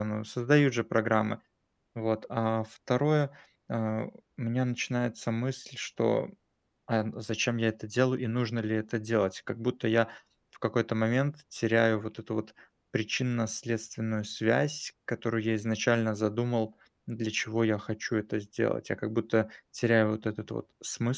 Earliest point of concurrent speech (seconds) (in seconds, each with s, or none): none